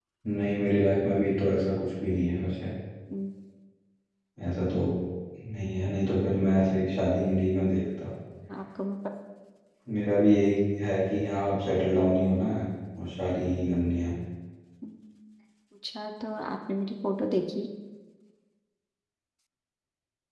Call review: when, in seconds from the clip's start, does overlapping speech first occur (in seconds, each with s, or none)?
none